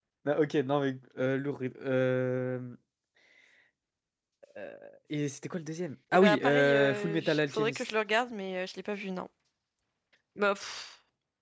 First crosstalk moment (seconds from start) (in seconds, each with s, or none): 6.1 s